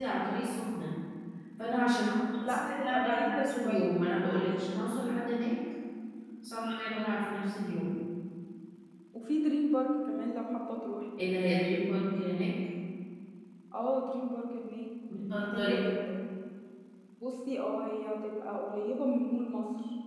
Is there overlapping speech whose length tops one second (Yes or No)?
Yes